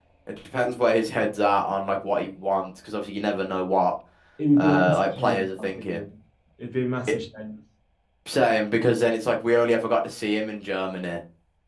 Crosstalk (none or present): present